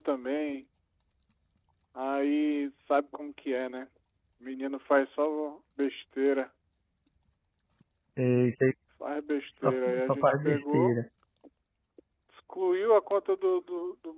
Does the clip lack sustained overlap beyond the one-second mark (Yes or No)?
No